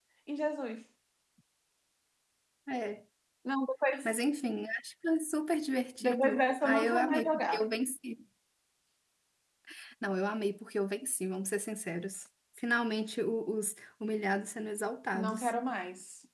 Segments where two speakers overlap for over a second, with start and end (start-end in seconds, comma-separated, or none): 6.0-7.6